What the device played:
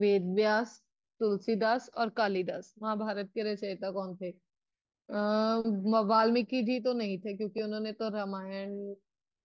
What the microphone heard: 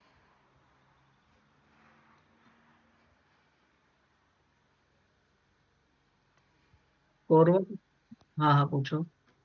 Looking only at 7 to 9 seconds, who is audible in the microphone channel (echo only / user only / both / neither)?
user only